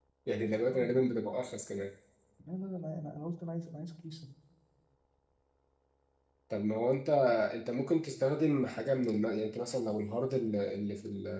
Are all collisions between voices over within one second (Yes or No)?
Yes